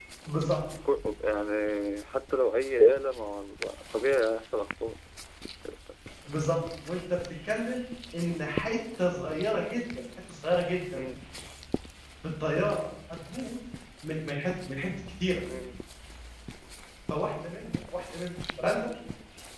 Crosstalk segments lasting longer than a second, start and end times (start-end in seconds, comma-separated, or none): none